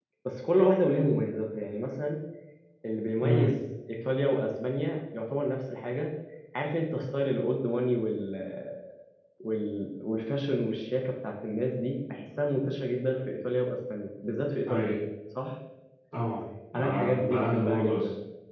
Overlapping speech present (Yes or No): Yes